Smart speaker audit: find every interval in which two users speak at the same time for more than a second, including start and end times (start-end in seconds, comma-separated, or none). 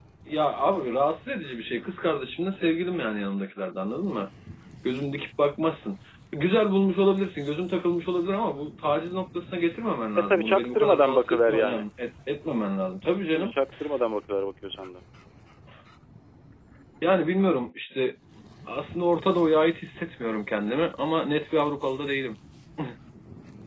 10.3-11.8